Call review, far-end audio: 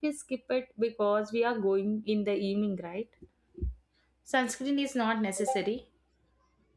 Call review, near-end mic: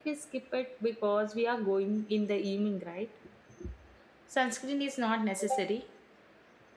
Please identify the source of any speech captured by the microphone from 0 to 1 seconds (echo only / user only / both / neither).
echo only